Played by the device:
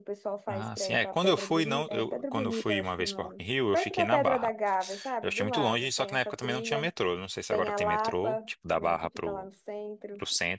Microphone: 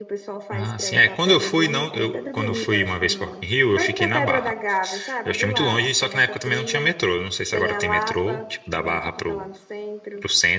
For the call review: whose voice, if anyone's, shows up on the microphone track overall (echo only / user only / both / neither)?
echo only